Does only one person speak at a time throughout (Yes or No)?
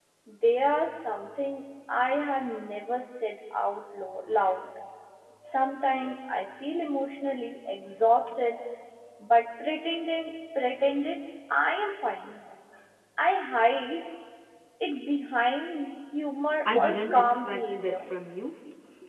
No